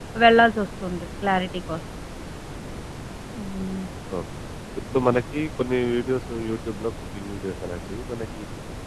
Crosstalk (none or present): none